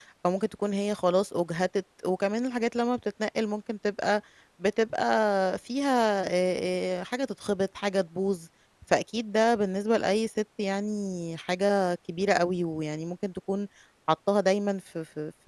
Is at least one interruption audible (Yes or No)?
No